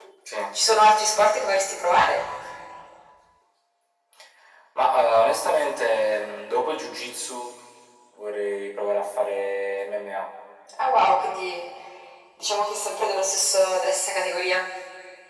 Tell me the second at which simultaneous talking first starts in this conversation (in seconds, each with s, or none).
none